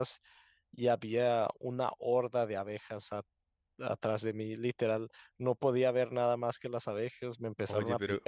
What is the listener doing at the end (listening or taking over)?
taking over